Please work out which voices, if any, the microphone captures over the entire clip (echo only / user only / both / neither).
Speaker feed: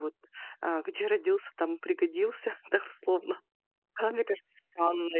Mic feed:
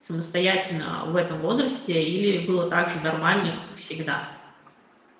user only